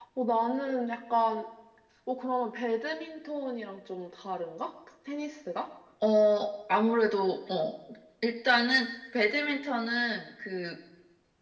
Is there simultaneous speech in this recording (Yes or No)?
No